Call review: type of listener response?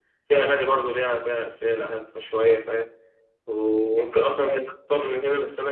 listening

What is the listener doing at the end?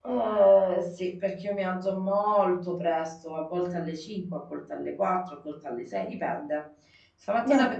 listening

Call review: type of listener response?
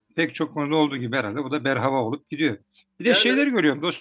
listening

